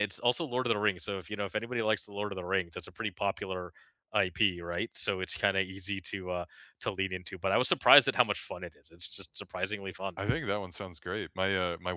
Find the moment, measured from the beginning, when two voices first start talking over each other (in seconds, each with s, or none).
none